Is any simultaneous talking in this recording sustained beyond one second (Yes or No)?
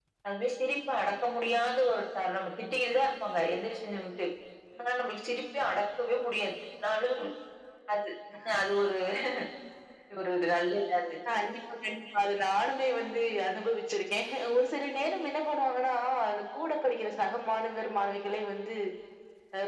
No